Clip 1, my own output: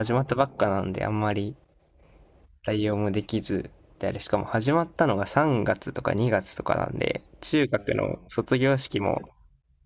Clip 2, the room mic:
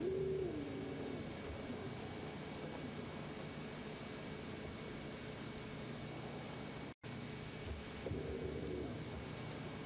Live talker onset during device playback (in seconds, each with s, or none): none